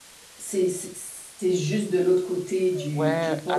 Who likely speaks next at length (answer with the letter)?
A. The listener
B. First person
A